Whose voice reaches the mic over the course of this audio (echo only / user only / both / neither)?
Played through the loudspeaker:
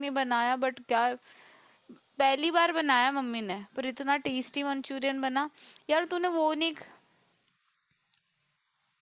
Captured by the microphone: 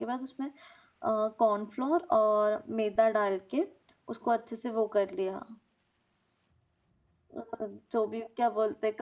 user only